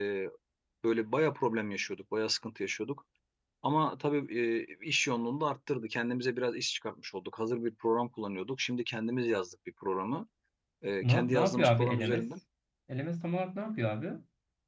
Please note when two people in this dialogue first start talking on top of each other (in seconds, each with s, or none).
11.0 s